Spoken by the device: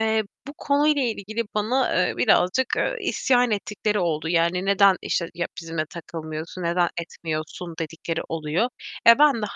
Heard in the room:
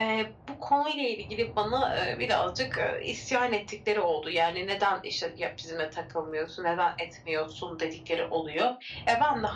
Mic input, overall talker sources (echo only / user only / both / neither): echo only